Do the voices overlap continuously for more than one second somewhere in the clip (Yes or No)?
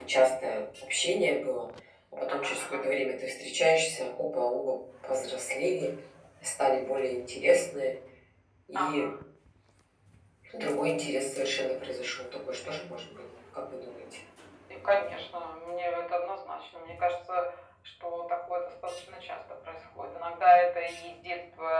No